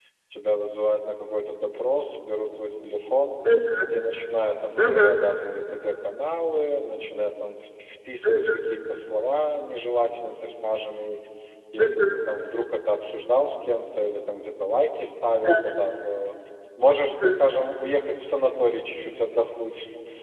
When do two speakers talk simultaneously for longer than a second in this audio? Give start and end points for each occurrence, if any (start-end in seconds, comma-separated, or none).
none